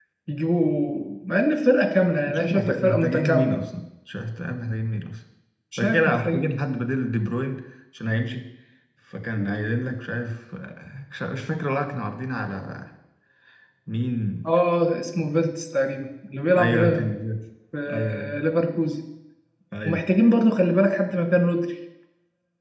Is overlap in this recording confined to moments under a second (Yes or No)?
No